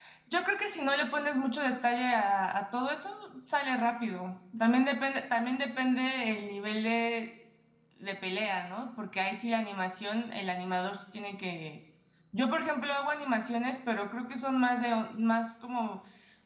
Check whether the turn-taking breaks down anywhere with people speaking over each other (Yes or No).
No